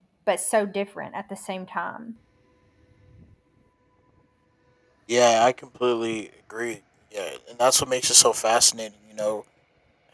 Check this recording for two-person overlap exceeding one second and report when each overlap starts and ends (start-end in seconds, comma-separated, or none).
none